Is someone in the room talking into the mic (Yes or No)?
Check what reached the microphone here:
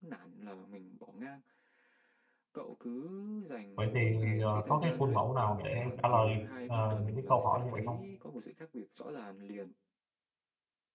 Yes